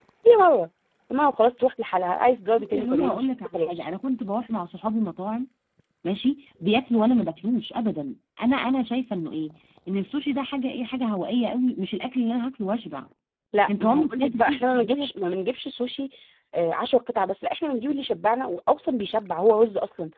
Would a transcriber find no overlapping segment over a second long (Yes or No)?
No